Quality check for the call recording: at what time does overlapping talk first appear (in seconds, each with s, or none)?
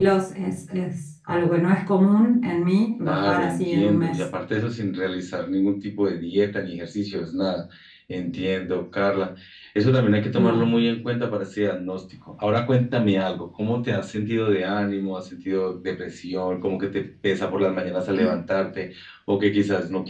3.0 s